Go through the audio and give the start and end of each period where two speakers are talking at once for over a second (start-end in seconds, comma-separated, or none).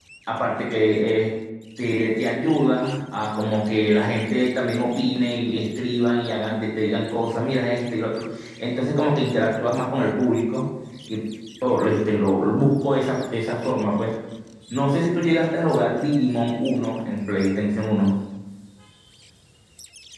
none